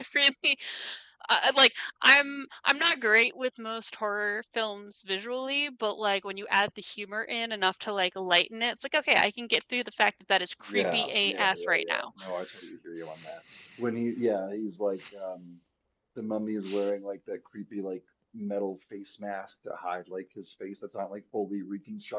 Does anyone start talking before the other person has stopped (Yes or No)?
Yes